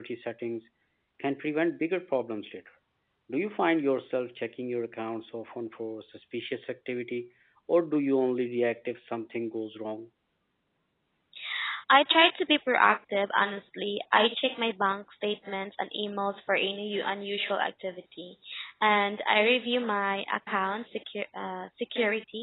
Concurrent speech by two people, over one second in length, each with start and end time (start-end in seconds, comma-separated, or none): none